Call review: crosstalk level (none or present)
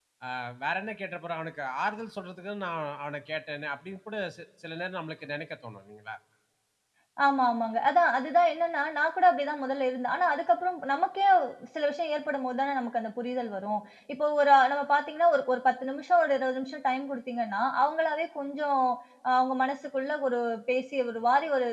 none